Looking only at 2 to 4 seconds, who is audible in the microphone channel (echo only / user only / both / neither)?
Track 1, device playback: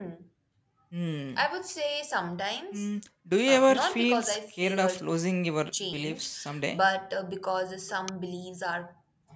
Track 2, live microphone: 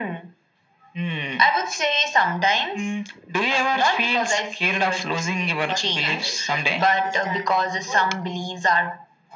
echo only